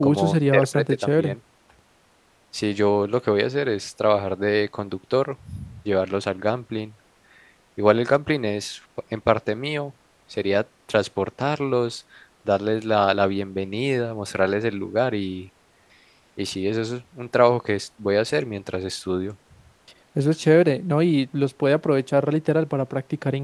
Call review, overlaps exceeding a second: present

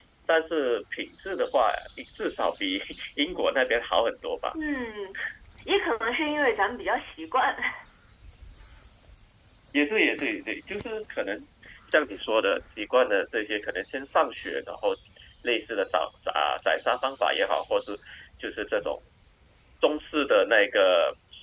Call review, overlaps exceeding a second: none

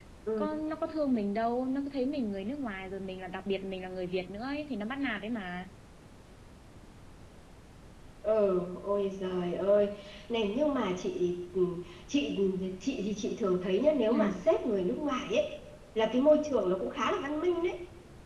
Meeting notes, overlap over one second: none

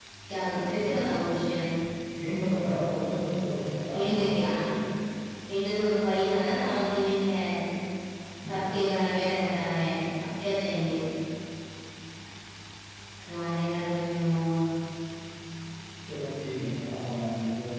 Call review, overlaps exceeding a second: none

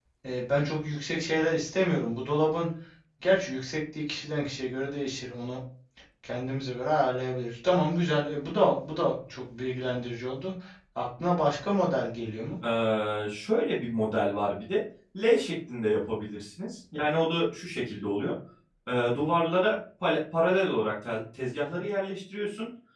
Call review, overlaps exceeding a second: none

